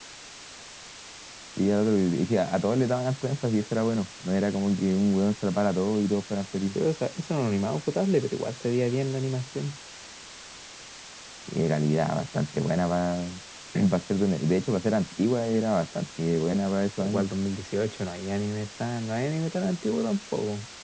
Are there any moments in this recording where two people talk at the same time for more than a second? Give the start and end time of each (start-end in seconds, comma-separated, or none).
none